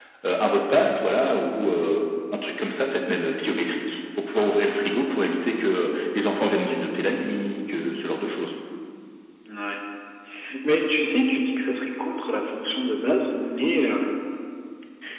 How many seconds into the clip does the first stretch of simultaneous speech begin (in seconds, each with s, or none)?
none